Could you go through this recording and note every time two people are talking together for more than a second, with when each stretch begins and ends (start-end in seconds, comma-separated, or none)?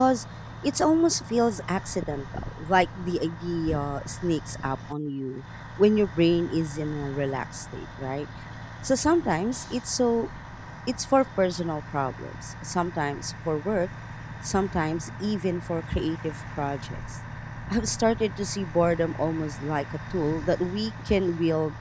none